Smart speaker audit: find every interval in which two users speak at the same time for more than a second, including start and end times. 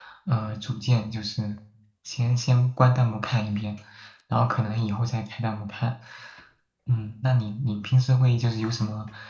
none

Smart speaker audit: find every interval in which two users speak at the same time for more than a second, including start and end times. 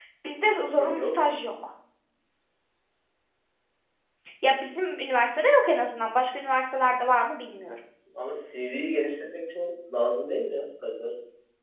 none

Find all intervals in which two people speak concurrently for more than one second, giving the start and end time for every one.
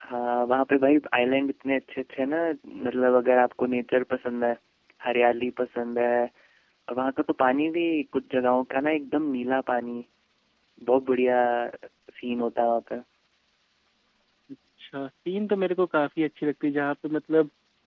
none

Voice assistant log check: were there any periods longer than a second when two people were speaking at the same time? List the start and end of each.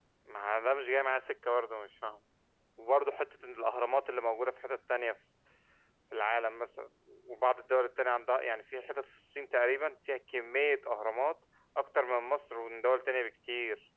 none

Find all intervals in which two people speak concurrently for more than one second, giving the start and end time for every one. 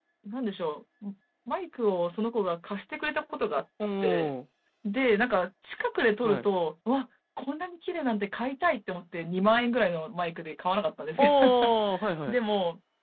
none

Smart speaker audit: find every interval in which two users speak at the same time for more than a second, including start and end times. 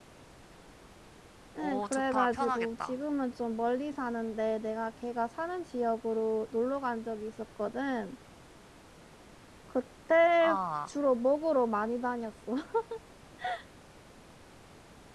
1.6-3.0

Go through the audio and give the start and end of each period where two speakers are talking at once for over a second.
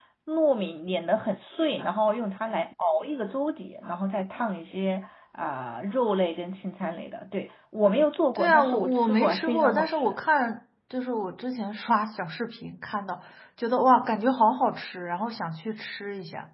8.4-10.1

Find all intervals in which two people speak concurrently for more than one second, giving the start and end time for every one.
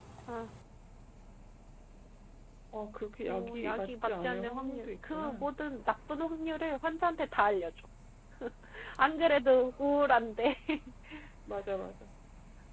3.2-5.5

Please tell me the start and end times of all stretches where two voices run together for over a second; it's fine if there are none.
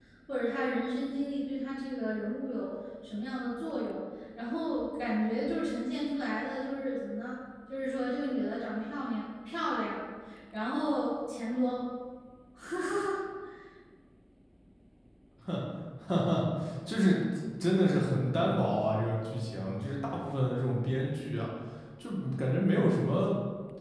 none

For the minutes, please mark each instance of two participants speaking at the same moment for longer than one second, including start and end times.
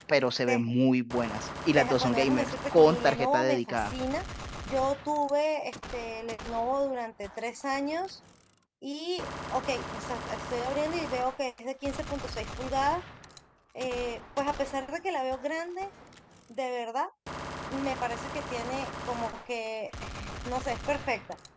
1.8-3.9

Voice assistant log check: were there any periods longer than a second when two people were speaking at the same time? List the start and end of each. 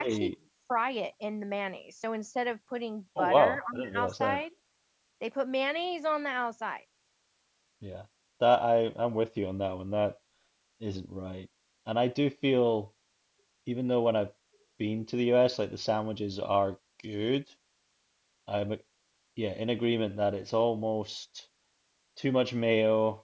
3.2-4.4

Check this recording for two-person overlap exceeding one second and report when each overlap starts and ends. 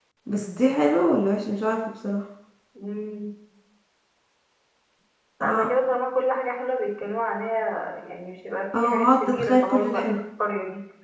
8.7-10.2

